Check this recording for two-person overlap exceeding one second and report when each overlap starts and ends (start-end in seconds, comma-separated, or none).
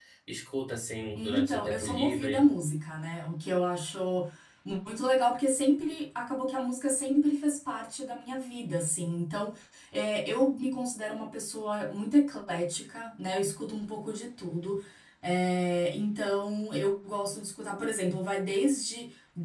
1.1-2.4